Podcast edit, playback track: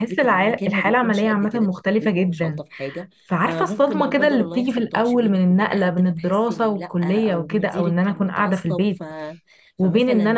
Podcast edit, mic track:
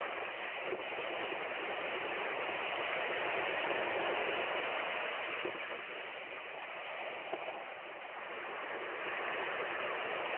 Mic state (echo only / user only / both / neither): neither